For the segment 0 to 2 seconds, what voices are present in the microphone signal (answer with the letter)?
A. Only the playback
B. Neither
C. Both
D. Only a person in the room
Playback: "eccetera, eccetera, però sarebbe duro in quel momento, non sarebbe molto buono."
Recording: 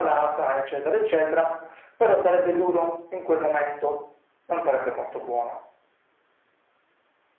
A